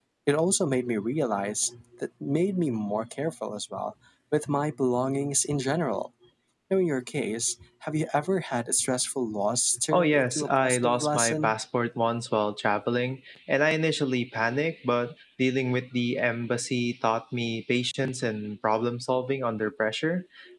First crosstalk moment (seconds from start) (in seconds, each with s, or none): 9.9 s